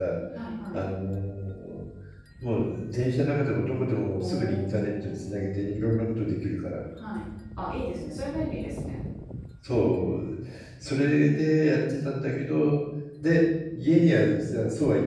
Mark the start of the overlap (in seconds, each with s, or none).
4.2 s